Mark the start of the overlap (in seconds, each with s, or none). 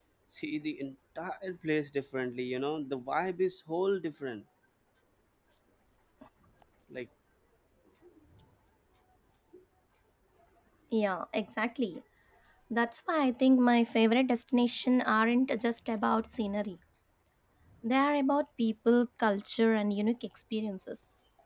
none